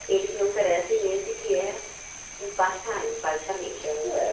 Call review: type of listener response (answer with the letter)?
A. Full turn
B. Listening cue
A